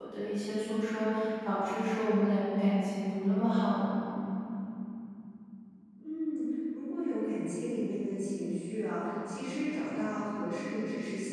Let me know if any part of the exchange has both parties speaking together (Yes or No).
No